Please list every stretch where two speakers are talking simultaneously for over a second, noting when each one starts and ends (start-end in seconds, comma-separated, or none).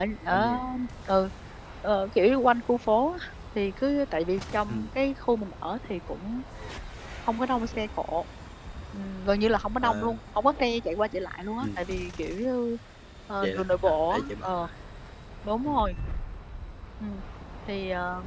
13.4-14.7